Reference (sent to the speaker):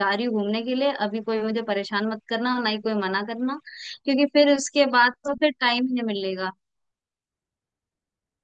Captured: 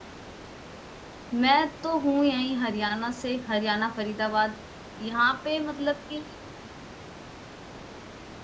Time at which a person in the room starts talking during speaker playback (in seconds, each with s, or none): 1.3 s